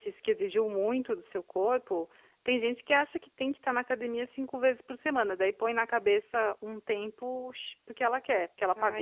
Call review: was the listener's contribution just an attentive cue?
No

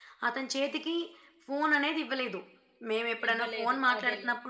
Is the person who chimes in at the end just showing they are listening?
Yes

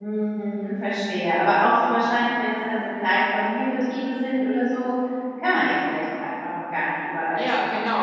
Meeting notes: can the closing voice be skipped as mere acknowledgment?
No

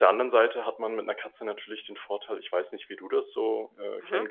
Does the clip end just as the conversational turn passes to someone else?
No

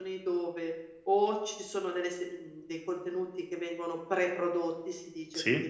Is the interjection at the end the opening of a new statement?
No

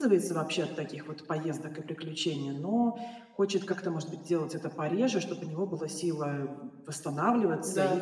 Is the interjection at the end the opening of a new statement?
No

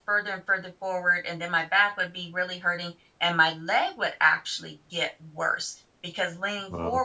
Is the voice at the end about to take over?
No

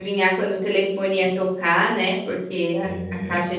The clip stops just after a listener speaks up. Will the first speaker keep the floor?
Yes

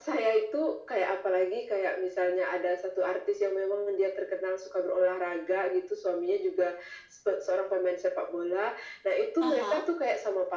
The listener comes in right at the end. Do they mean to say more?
No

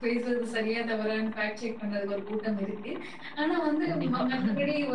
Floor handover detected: No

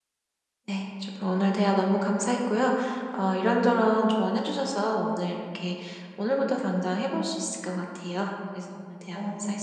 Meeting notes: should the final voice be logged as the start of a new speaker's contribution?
Yes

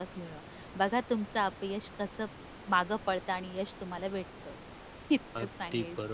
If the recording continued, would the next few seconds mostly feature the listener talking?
Yes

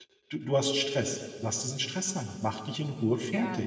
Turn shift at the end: Yes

